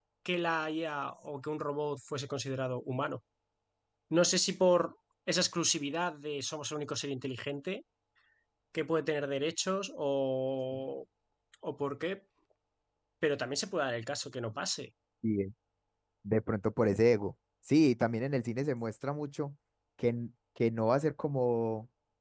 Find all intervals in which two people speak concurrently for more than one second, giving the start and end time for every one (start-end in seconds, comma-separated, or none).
none